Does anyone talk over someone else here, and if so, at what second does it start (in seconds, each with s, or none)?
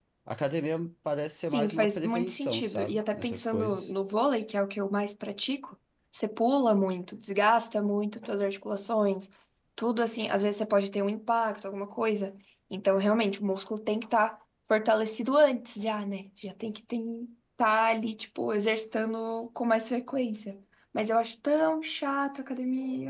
1.4 s